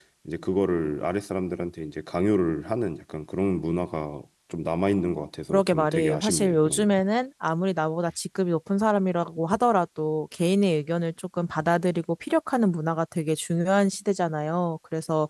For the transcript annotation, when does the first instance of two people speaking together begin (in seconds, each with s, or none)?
5.5 s